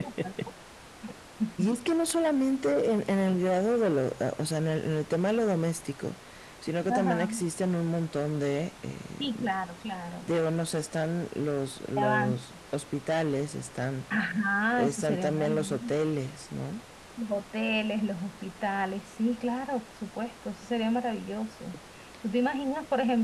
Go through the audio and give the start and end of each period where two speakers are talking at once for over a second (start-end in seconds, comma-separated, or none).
14.7-16.0